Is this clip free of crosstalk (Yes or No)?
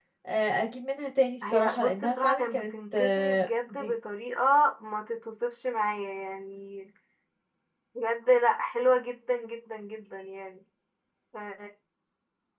No